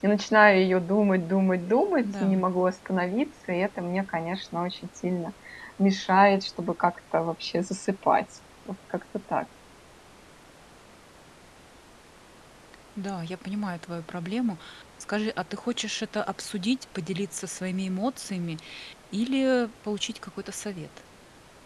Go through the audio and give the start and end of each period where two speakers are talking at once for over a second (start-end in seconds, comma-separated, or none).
none